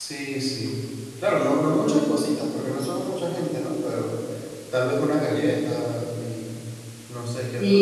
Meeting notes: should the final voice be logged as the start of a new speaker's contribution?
Yes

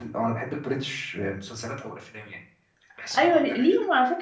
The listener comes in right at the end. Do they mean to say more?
Yes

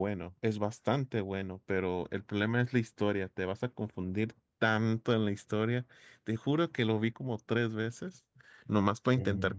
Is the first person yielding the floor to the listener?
No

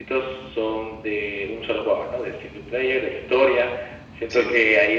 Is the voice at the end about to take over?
No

